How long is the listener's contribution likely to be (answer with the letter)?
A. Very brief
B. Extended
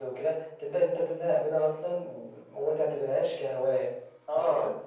B